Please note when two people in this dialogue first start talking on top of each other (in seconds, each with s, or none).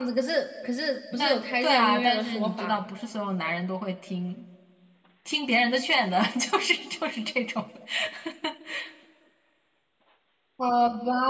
1.1 s